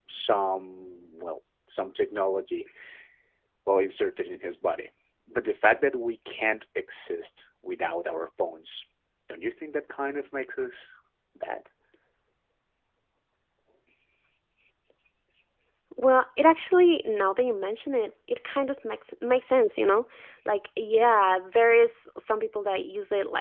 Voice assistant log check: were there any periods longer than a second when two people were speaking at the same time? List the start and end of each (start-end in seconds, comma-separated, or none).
none